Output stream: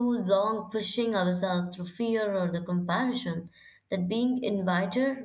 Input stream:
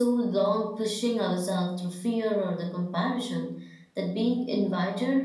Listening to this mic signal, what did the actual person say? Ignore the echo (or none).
none